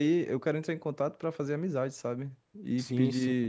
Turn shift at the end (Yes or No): Yes